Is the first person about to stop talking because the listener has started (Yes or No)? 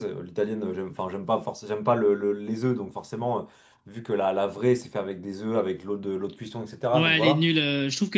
Yes